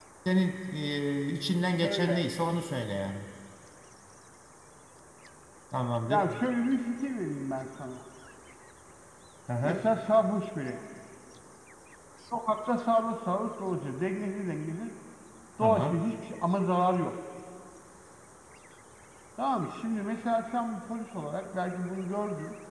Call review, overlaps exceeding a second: none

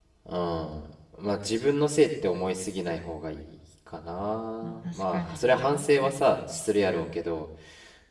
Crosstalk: present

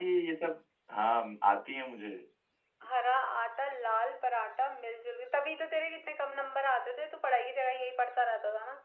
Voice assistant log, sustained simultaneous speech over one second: none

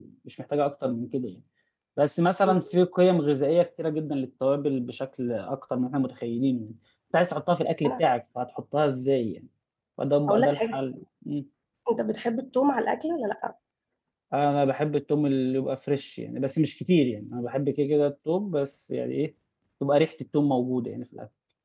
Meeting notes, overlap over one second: none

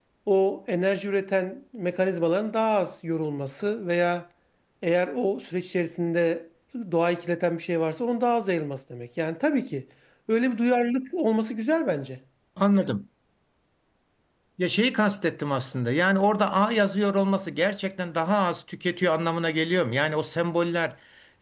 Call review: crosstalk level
none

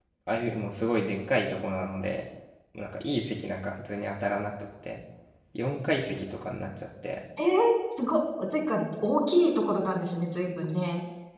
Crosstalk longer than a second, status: none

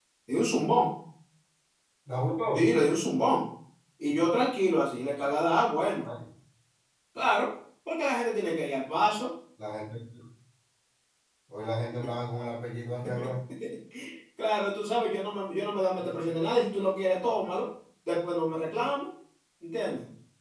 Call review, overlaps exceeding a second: none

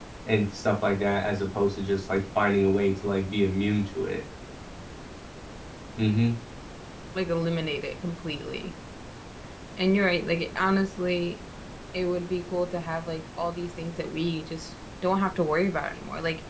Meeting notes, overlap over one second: none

